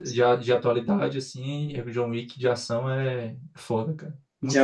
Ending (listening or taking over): taking over